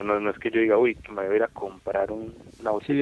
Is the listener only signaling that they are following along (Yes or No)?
No